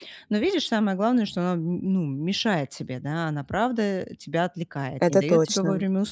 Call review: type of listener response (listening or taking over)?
listening